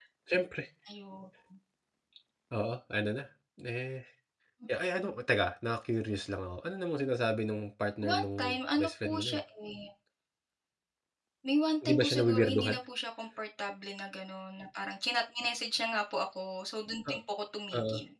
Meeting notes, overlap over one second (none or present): present